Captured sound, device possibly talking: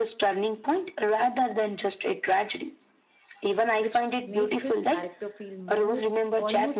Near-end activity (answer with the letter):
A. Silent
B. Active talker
B